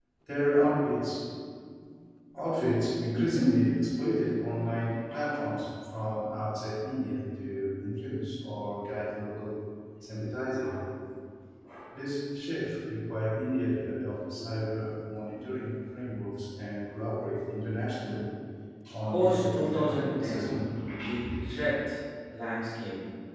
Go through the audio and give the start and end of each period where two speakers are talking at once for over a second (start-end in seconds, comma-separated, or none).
19.1-20.6